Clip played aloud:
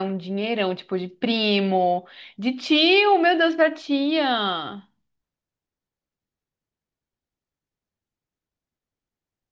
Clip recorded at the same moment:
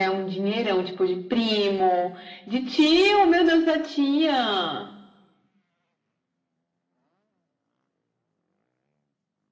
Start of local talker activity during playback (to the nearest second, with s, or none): none